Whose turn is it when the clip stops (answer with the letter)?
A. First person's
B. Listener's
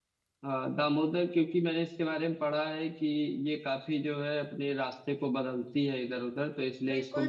B